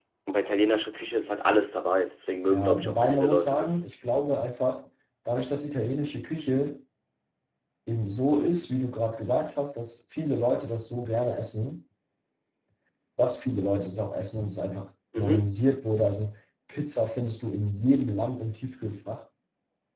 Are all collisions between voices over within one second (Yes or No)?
No